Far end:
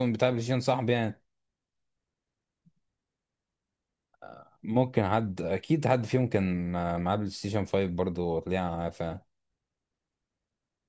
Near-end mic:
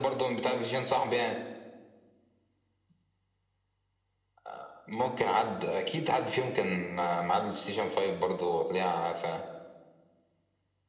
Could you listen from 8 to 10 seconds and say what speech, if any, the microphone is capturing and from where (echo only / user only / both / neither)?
echo only